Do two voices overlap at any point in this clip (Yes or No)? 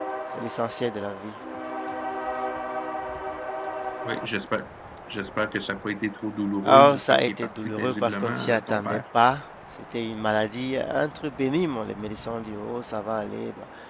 Yes